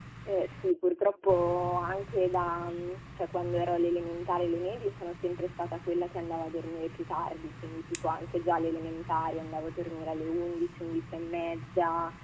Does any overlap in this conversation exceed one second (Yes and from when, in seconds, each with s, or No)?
No